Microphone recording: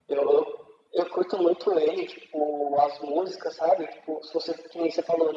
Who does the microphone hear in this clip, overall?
echo only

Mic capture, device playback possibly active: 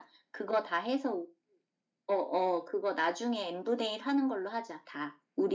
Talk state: echo only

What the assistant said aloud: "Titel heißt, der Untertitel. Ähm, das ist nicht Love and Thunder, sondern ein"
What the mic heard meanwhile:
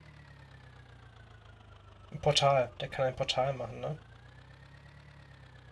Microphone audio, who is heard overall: user only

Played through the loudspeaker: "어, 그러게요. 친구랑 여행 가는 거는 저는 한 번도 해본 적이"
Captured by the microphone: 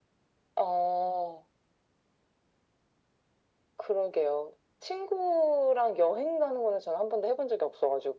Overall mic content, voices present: echo only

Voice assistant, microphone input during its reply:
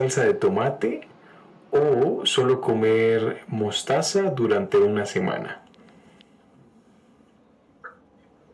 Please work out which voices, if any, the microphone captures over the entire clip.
echo only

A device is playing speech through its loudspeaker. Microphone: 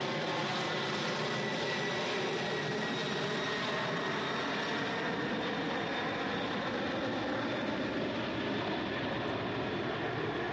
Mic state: neither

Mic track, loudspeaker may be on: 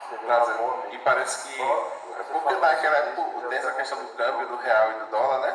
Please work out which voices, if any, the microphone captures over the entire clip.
echo only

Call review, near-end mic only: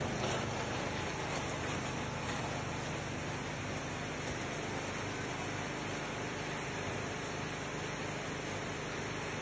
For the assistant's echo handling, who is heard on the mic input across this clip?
neither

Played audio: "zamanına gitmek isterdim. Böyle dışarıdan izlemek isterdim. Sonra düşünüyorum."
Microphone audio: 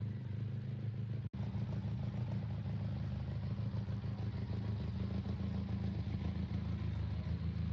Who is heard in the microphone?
neither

